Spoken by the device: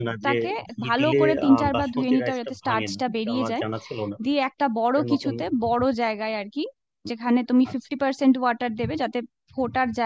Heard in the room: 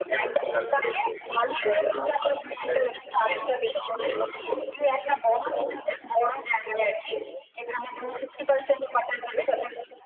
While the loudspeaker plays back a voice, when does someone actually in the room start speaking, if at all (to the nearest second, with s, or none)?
none